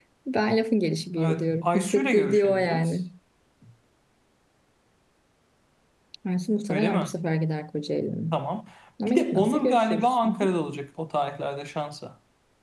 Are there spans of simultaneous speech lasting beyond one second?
Yes, from 1.2 s

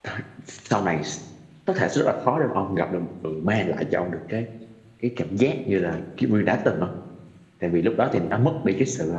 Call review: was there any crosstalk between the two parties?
No

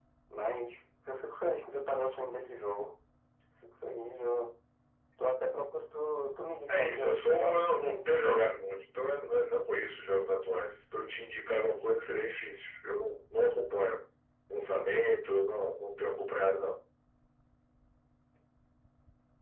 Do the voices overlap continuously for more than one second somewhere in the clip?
Yes, from 6.7 s

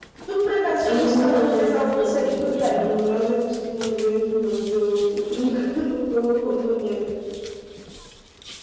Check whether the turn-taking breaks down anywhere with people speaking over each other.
Yes, from 0.8 s

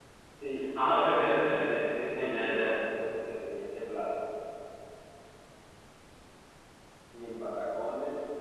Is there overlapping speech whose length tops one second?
Yes, from 0.7 s

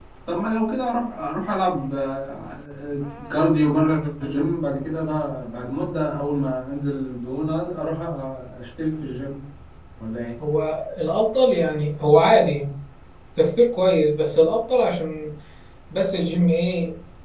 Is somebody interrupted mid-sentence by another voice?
No

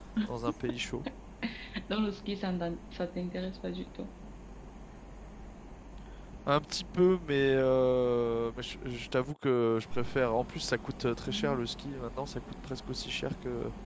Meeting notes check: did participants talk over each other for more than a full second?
No

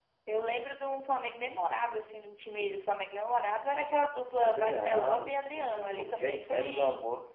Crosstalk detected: Yes, from 4.4 s

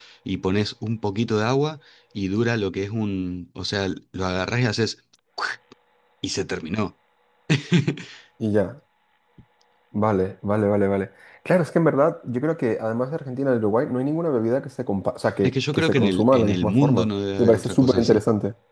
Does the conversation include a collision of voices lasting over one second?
Yes, from 15.4 s

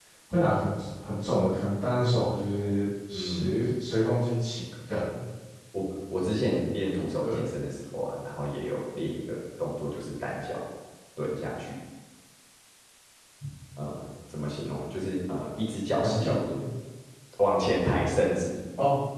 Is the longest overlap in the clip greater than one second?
No

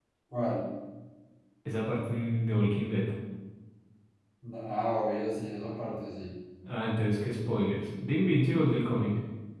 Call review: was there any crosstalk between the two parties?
No

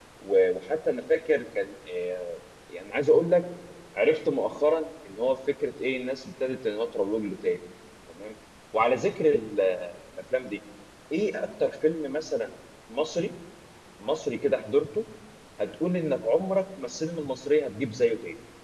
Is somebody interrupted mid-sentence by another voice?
No

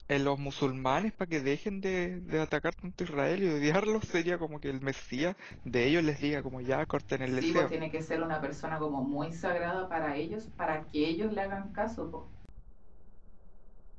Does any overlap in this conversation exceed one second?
No

